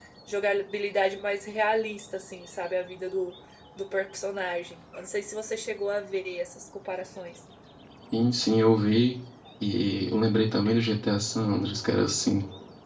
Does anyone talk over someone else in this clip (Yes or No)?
No